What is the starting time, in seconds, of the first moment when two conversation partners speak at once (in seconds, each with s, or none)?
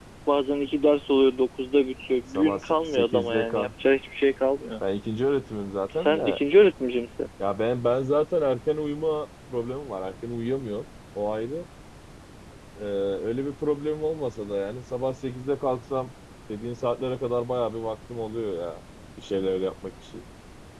2.4 s